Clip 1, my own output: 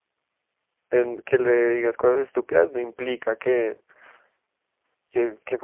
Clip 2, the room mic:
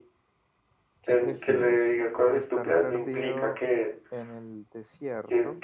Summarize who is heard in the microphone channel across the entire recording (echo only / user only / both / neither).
both